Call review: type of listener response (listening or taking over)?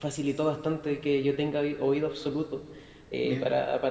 listening